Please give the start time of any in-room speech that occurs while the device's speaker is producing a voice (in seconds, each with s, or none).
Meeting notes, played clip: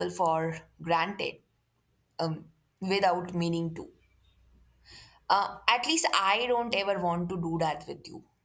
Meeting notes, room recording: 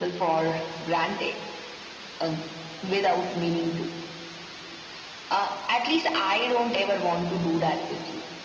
none